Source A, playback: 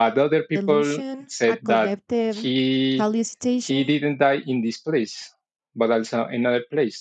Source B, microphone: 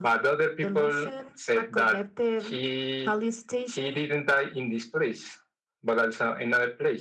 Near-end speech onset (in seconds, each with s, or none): none